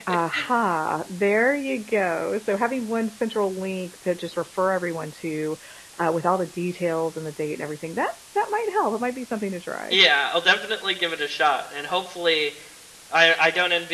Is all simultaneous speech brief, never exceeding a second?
Yes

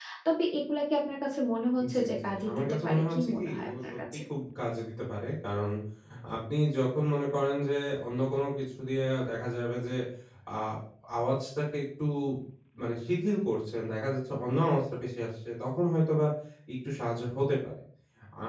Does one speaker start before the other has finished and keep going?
Yes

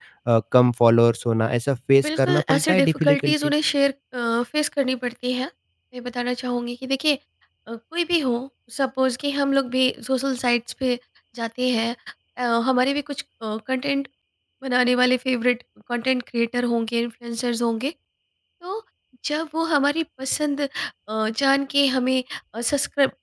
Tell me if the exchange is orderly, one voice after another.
No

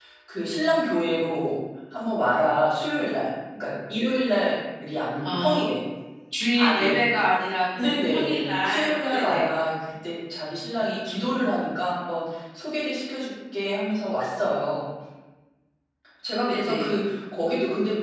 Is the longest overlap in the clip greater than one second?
Yes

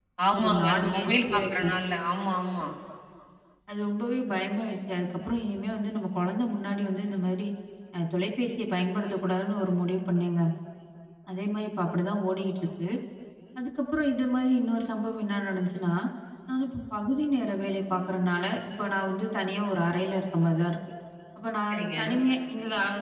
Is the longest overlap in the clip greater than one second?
Yes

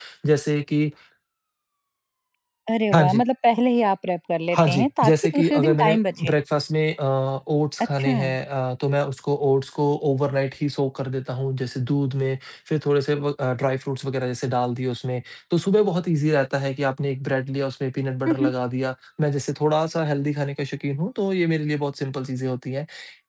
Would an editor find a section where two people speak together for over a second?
Yes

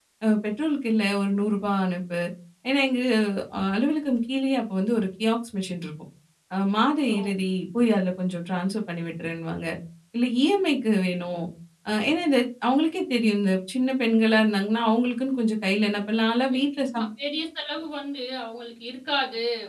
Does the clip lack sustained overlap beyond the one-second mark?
Yes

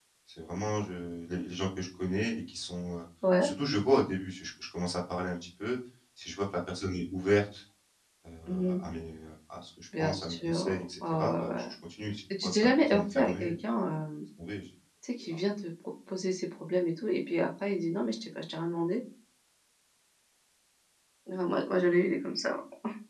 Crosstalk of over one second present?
Yes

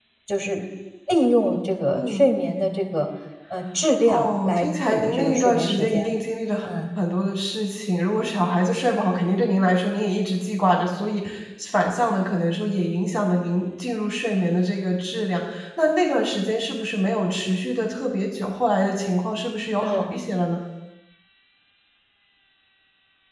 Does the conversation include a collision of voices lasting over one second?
Yes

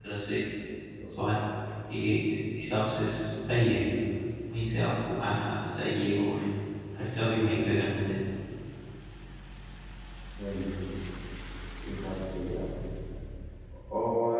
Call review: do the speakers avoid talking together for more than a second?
Yes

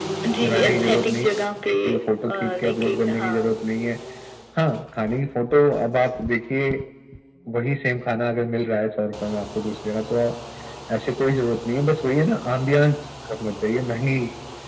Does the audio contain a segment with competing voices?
Yes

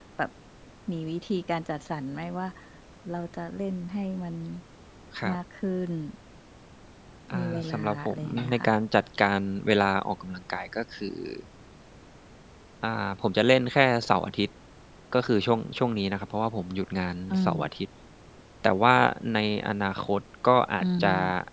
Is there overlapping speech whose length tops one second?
Yes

